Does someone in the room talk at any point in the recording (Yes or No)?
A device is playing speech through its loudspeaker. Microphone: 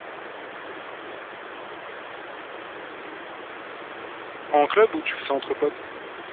Yes